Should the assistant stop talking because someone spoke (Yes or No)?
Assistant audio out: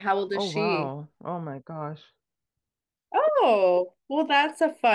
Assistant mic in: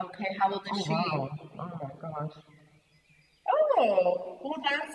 No